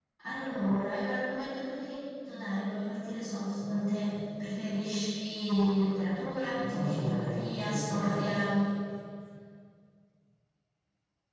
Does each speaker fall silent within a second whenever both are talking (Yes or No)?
No